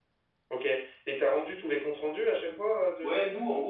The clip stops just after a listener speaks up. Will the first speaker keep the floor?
No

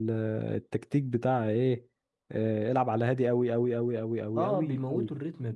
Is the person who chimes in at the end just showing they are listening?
No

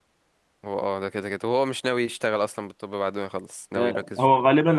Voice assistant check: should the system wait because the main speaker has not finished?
No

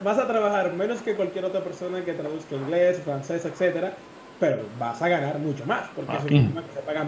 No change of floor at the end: Yes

